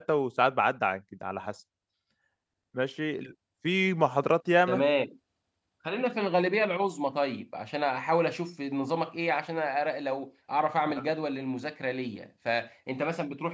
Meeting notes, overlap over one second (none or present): none